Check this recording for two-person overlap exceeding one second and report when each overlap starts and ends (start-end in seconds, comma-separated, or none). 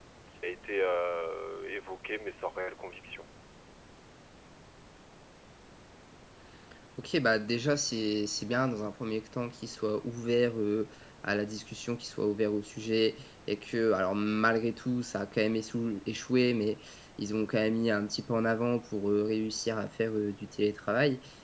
none